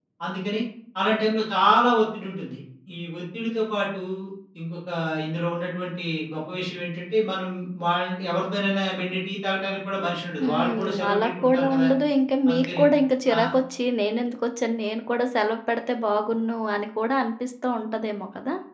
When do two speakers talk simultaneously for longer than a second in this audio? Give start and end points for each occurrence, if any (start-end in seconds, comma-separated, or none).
10.4-11.9